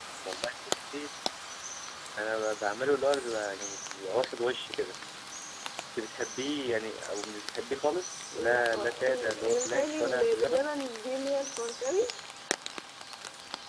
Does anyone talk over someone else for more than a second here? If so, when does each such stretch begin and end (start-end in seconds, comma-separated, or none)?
8.3-10.7